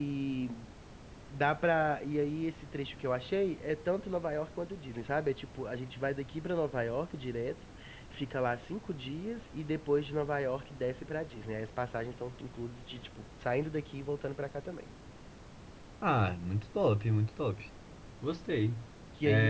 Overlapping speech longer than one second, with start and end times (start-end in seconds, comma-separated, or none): none